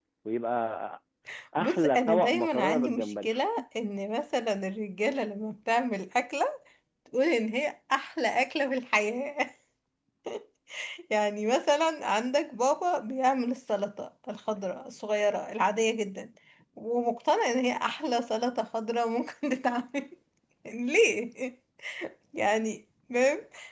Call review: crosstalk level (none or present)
present